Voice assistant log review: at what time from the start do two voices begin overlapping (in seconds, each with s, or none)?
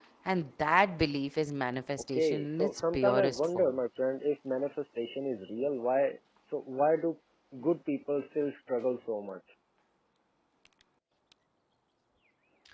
2.1 s